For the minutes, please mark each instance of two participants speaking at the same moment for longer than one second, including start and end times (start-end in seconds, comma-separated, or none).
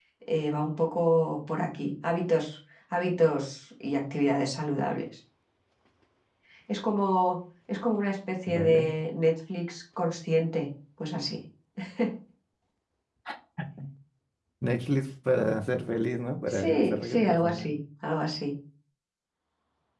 16.5-17.7